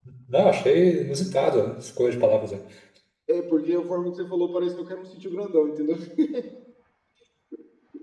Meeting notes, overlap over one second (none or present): none